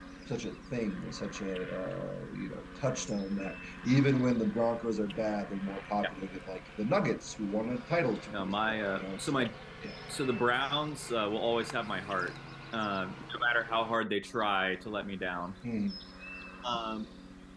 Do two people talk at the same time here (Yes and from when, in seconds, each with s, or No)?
Yes, from 8.3 s